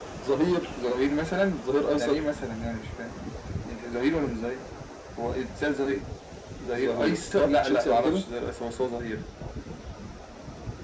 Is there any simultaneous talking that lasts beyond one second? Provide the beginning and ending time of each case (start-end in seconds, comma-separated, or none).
6.7-8.2